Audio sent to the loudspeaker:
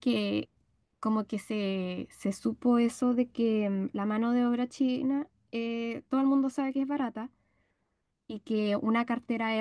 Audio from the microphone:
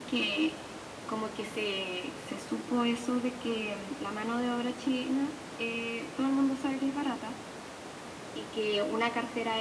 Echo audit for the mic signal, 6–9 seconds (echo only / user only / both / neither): echo only